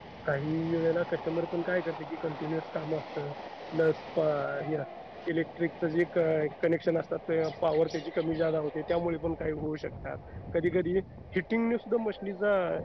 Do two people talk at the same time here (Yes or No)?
No